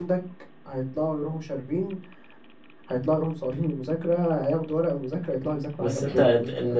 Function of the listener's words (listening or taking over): taking over